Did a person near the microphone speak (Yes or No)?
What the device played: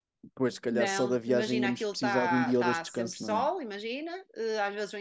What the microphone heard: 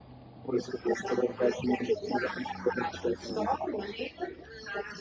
No